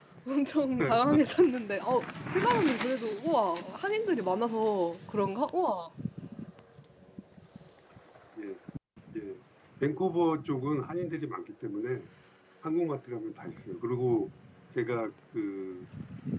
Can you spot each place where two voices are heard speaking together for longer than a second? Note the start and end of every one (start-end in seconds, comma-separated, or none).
none